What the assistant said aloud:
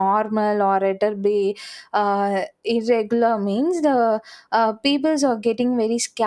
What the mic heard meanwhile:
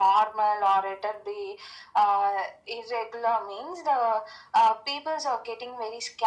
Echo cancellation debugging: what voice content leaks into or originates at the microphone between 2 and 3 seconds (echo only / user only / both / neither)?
echo only